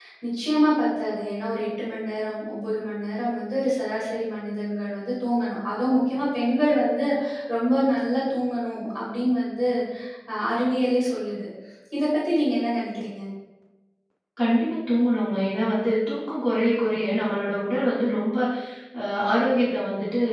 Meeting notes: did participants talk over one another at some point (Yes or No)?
No